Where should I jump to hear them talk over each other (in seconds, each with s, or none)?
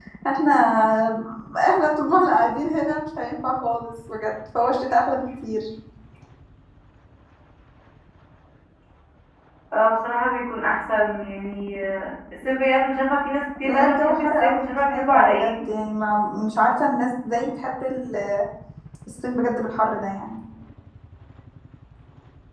13.6 s